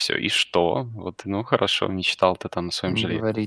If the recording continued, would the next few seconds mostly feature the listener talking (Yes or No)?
No